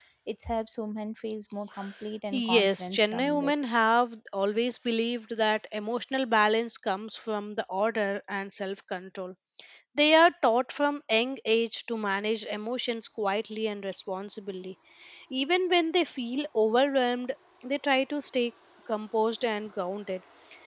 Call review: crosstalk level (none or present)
present